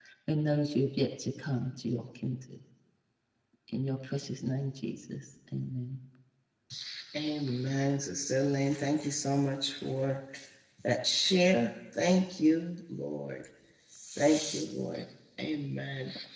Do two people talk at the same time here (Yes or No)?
No